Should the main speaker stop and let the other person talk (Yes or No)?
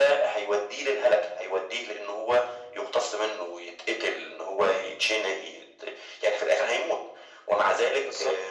No